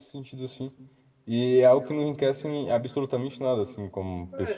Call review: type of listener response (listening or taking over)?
taking over